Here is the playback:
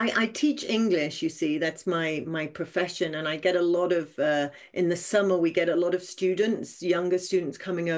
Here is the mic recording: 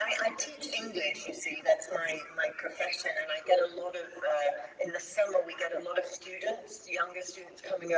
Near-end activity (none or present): none